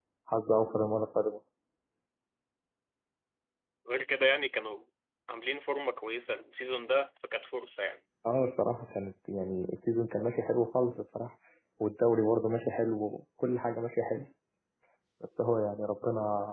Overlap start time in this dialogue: none

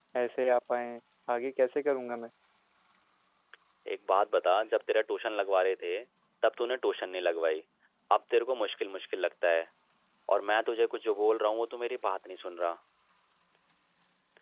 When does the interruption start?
none

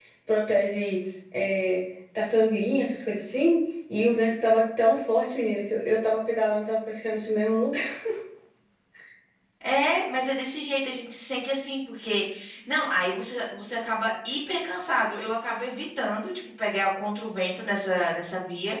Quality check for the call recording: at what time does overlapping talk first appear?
none

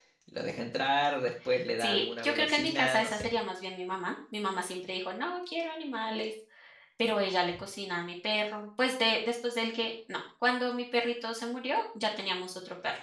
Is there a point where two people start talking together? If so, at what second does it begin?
1.8 s

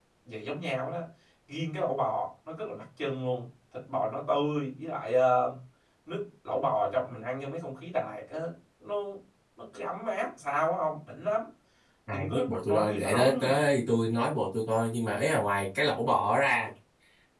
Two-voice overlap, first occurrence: 12.1 s

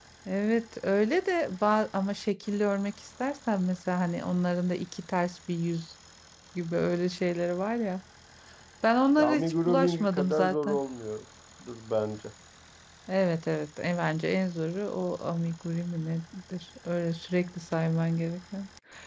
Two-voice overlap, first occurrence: 9.2 s

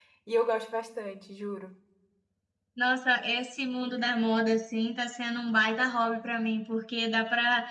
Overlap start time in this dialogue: none

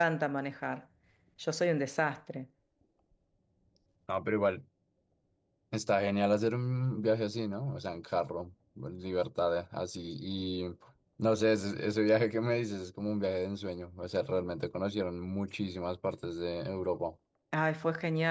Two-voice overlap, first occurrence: none

